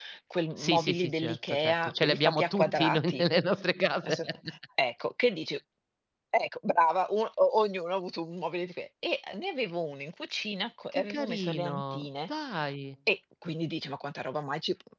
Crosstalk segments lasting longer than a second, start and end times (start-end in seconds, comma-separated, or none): 0.6-3.3, 10.9-12.3